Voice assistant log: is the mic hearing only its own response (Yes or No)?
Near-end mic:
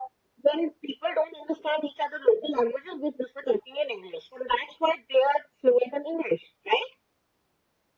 Yes